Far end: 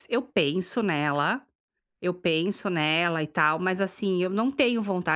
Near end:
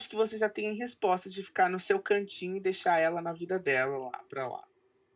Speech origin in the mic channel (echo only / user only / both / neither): user only